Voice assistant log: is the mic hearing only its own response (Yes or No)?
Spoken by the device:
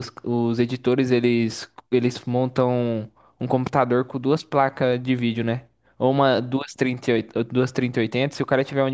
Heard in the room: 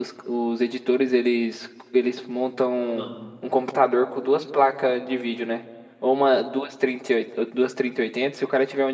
No